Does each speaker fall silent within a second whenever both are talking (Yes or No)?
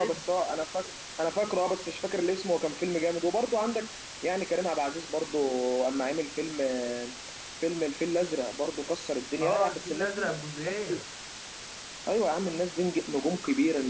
No